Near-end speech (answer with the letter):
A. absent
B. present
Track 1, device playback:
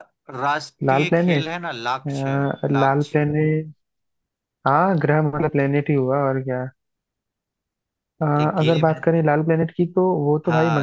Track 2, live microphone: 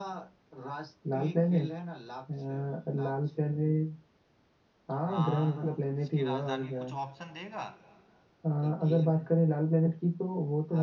B